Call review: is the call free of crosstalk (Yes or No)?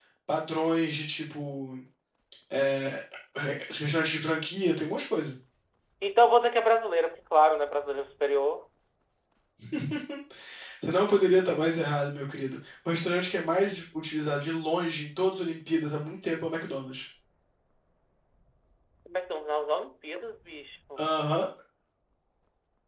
Yes